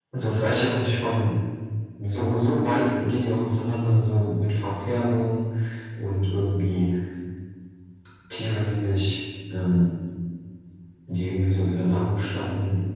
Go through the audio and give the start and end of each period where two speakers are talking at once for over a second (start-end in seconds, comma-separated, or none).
none